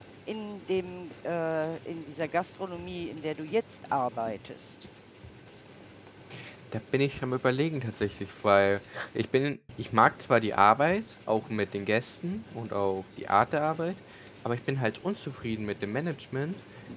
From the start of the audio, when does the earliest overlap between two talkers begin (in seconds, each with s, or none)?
none